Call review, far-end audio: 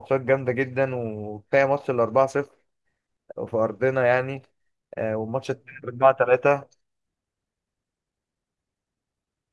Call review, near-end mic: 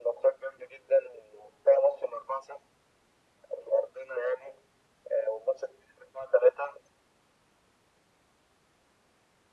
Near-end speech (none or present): none